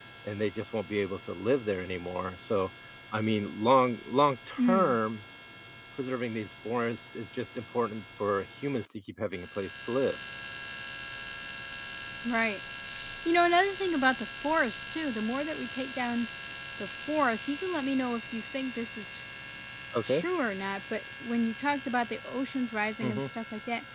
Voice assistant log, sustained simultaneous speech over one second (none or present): none